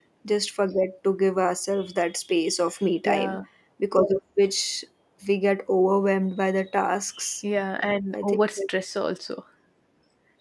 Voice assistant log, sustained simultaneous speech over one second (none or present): none